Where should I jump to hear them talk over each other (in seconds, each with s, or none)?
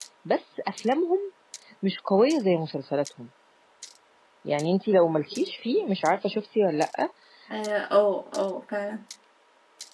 none